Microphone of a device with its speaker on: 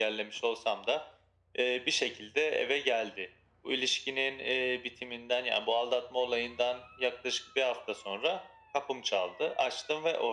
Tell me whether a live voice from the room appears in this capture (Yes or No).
No